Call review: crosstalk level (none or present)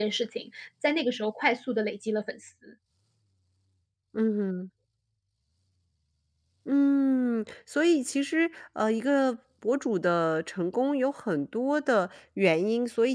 none